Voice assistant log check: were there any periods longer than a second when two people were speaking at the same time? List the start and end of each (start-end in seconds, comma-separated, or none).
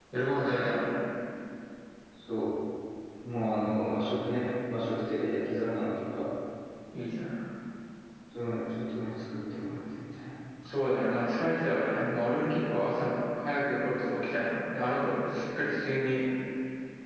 none